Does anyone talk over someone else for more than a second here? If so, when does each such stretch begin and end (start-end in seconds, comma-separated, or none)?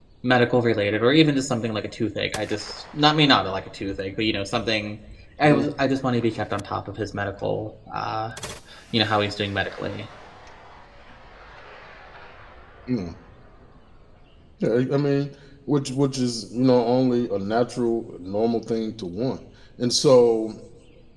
none